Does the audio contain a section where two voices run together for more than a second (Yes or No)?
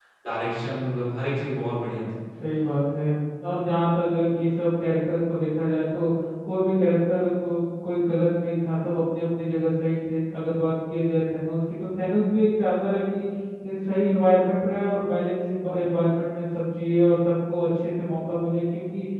No